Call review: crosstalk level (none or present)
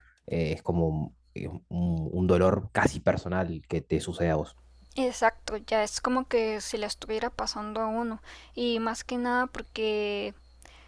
none